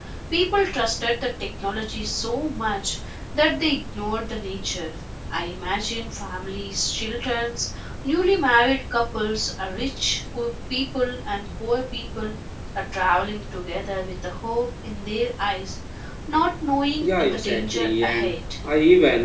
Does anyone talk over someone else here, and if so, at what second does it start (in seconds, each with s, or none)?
17.0 s